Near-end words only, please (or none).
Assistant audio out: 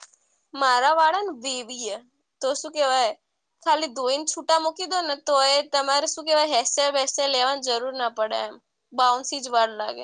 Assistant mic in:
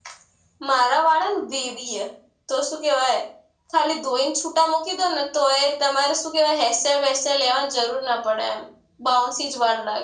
none